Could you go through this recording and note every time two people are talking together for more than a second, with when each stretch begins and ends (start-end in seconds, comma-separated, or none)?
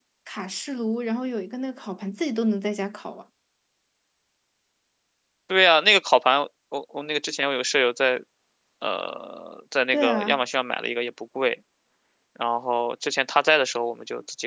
none